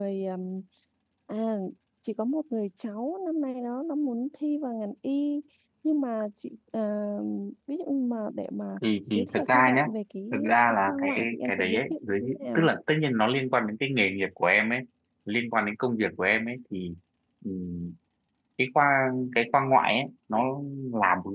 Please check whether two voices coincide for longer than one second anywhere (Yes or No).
Yes